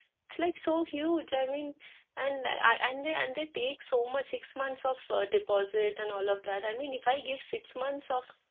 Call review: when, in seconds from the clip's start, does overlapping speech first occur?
none

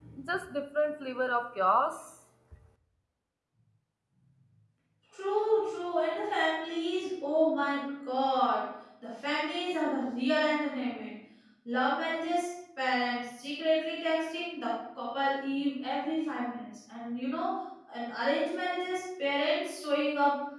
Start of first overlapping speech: none

